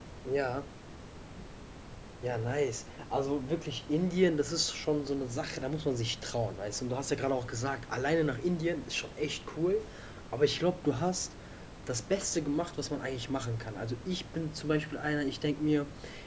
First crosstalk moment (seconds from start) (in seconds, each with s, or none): none